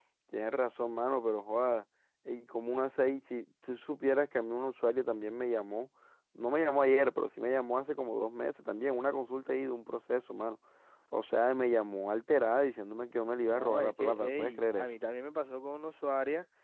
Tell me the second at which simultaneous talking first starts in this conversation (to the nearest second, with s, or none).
13 s